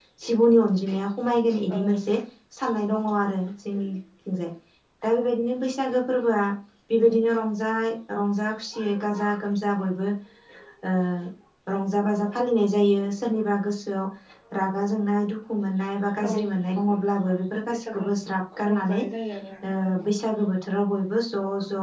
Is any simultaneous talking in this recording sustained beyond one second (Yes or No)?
No